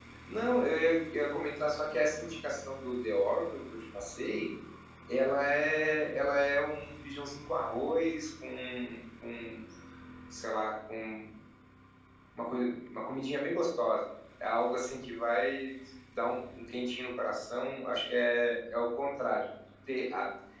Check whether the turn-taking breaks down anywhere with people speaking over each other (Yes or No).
No